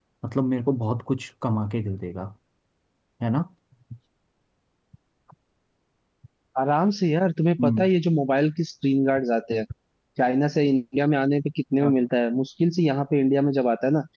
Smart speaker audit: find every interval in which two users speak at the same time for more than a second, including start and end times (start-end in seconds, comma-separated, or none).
none